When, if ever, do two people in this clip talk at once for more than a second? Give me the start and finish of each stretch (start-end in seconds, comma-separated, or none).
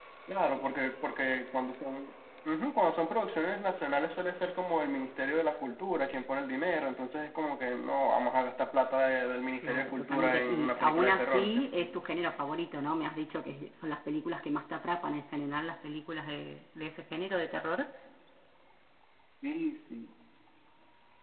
9.6-11.7